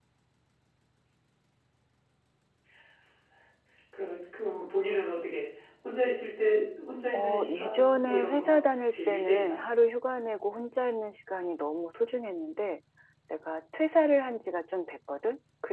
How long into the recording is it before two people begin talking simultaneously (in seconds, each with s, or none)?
7.1 s